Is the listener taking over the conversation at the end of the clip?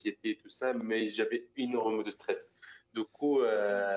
No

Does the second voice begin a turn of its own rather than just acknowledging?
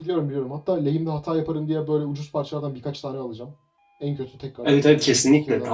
Yes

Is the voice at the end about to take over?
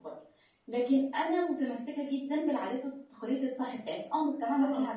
No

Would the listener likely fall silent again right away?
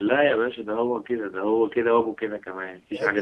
No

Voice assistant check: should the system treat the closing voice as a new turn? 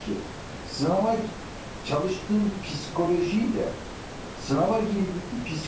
No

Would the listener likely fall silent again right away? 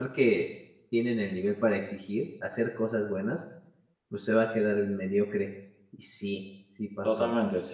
No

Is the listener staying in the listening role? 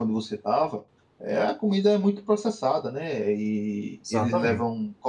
Yes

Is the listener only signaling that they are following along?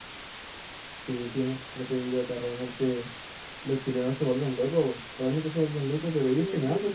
Yes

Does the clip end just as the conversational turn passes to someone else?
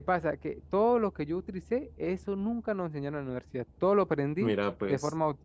No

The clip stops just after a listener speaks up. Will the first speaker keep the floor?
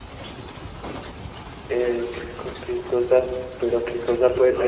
No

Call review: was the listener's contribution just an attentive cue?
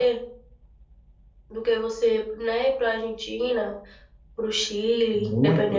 No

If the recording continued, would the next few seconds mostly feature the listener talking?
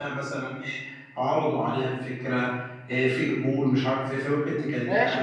Yes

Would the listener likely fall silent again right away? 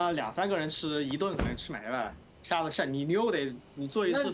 No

